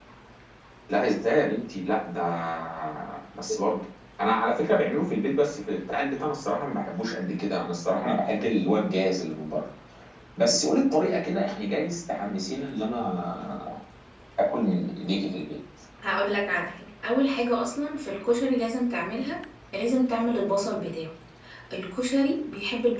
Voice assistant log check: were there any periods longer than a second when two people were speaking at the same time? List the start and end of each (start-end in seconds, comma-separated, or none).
none